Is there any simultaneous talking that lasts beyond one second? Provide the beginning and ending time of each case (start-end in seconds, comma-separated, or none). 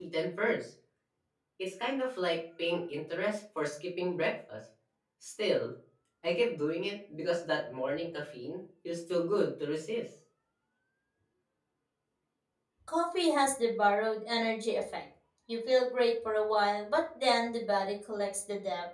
none